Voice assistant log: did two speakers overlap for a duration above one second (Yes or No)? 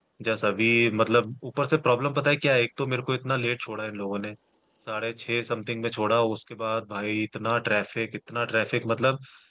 No